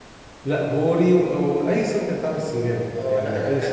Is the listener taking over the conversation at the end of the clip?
Yes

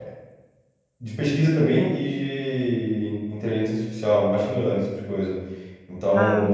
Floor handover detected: No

